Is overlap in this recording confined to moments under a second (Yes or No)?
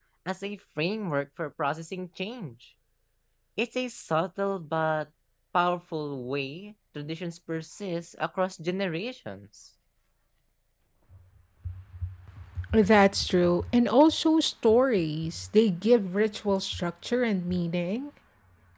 Yes